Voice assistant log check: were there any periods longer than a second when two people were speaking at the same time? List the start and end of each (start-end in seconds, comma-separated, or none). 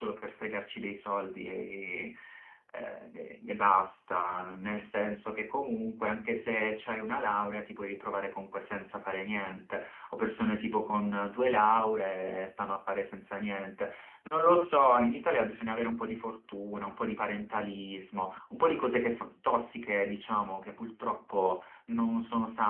none